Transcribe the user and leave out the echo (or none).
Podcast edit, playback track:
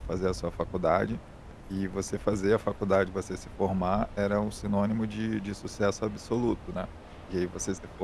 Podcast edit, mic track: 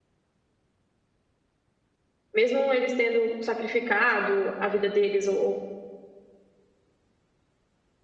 Mesmo eles tendo sacrificado a vida deles ou ou